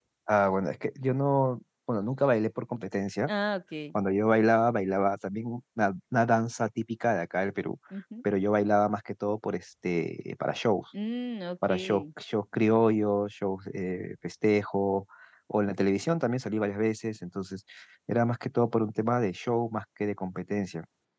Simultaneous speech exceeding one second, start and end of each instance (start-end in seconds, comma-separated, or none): none